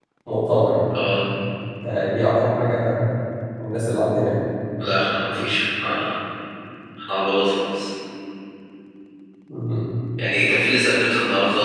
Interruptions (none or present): none